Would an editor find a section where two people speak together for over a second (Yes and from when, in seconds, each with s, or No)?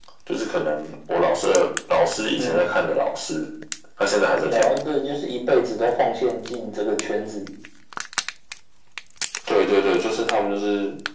No